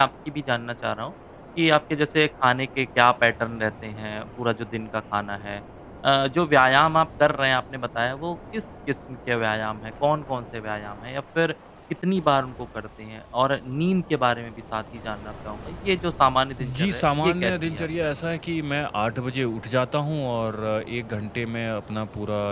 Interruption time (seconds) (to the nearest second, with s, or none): 17 s